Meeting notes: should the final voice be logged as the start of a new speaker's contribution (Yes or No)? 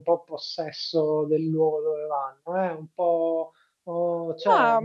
No